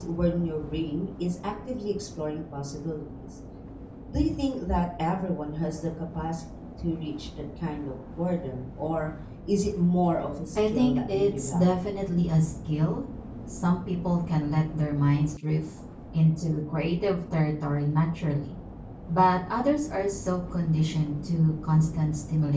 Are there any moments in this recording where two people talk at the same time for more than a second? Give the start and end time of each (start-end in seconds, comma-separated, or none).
10.6-11.8